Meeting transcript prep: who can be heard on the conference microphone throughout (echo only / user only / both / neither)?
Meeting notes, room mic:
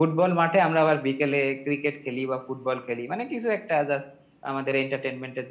echo only